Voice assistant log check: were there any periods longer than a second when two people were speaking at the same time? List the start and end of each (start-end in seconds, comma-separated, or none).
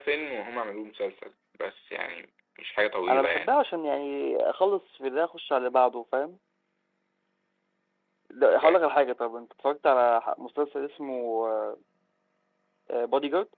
none